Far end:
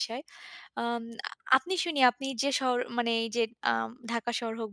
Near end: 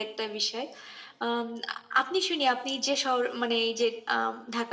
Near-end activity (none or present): none